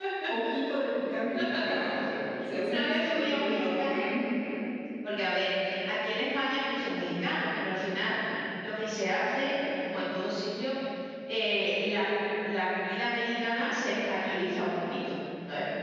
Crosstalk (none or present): present